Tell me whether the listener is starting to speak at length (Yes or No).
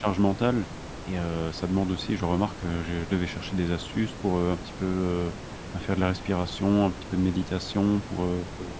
No